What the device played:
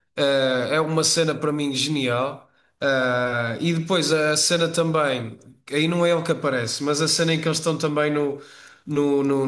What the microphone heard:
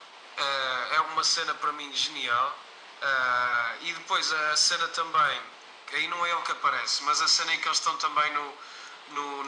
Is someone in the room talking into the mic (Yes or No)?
No